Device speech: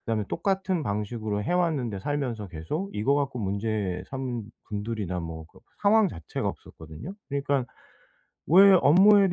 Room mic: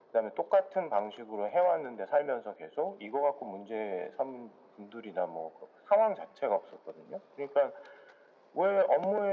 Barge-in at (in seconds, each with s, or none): none